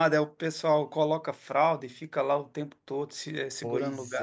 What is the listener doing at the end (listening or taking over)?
taking over